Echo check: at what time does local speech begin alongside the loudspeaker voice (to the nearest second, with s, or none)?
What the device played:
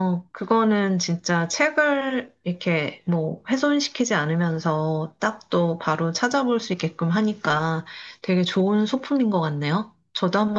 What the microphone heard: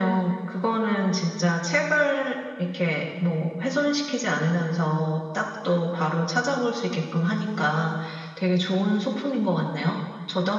none